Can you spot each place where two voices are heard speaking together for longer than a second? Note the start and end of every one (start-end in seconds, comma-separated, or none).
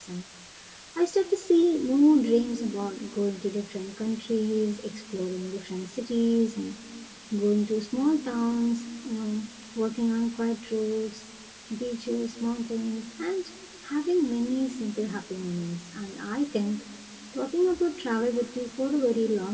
none